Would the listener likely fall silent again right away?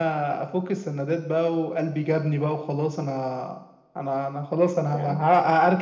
Yes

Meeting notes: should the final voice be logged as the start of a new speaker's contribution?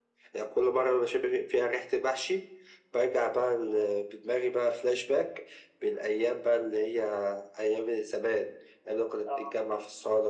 No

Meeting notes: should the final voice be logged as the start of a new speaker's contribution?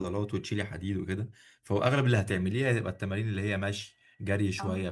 No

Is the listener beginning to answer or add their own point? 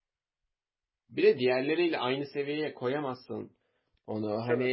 No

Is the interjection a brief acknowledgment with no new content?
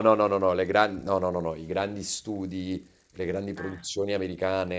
Yes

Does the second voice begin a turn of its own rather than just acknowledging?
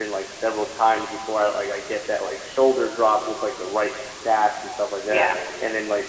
No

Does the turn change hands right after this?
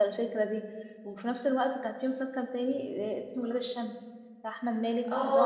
Yes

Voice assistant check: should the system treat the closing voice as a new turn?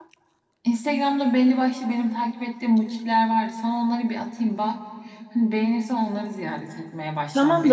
Yes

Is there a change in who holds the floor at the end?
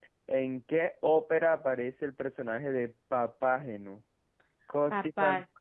No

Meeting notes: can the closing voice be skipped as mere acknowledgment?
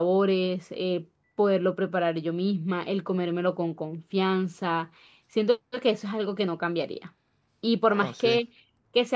Yes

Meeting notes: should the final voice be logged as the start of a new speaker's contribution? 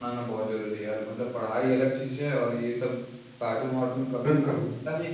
No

